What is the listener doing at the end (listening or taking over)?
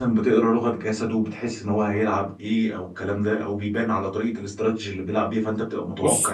taking over